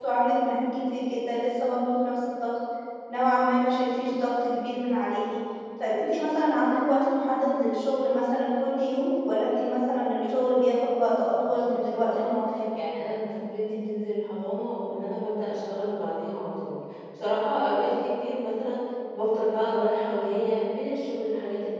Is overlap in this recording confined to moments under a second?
No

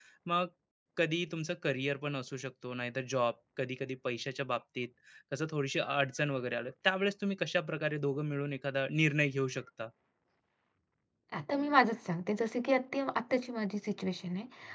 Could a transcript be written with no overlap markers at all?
Yes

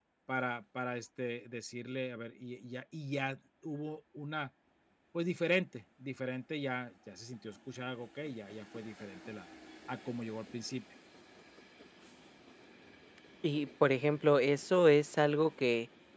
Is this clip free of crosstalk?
Yes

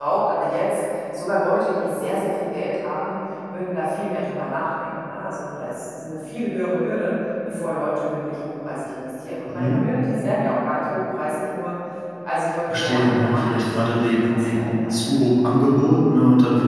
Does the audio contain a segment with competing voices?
Yes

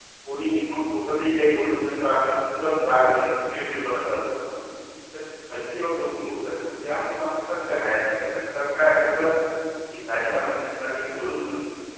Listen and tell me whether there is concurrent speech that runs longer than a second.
No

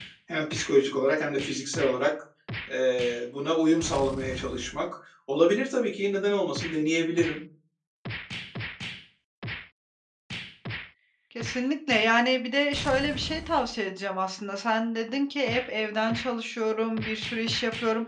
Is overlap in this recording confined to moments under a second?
Yes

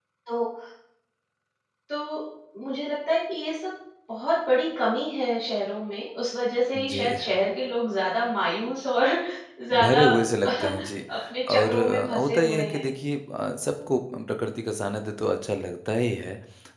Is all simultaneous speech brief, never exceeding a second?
No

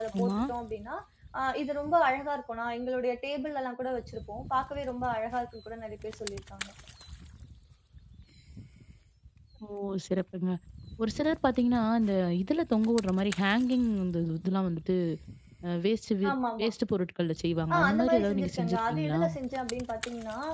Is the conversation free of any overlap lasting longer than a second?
No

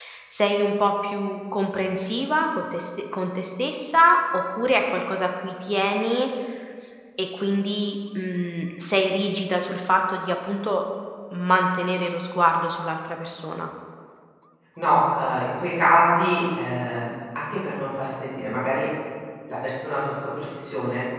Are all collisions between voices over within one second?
Yes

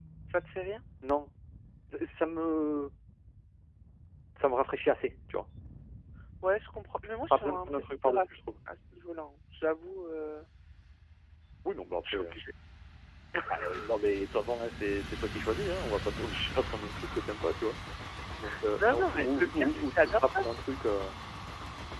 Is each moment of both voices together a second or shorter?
No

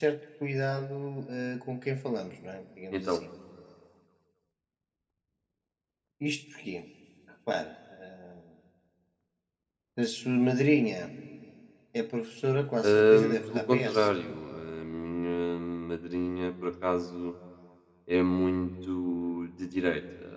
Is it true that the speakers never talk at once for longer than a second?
No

